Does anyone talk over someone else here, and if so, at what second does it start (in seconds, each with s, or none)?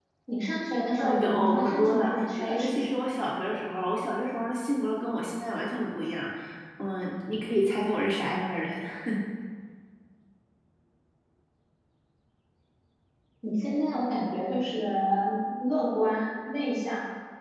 1.0 s